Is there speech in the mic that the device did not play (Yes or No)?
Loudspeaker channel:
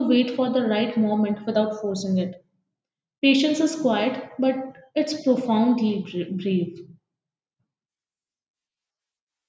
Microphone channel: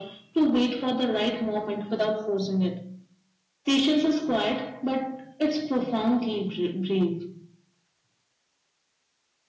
No